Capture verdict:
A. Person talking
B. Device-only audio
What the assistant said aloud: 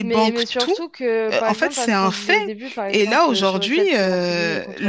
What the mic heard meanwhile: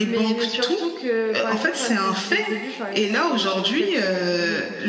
B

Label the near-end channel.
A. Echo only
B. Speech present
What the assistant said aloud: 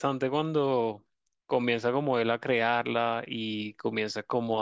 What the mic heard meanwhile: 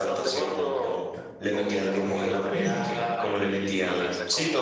B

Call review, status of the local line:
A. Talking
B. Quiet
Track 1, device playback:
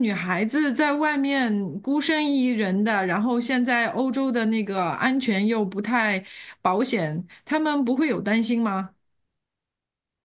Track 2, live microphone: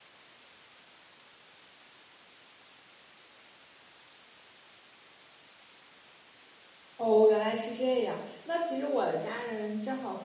A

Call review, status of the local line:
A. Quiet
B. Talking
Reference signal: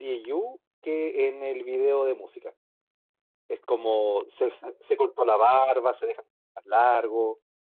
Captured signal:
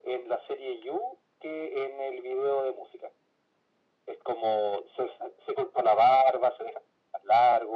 A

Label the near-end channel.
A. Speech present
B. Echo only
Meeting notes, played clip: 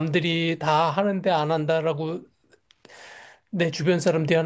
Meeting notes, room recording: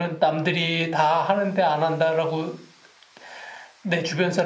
B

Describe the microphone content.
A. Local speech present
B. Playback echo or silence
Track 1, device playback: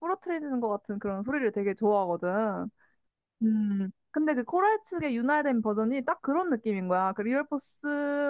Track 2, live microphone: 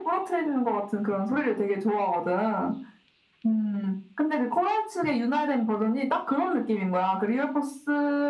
B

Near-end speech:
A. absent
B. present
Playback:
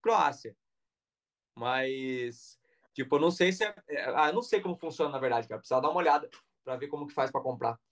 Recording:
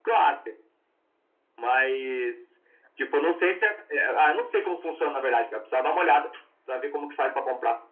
A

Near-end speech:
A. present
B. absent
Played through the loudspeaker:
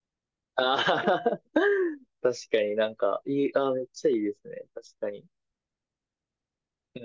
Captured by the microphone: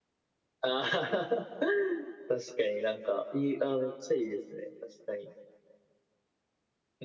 B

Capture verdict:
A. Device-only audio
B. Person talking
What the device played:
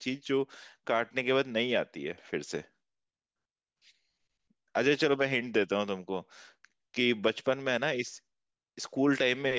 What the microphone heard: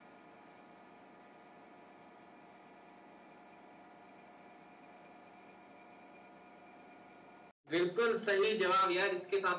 B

